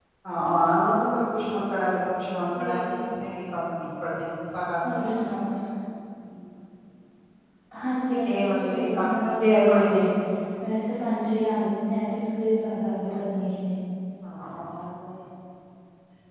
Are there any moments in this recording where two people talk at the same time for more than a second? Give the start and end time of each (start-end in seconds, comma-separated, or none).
8.1-10.0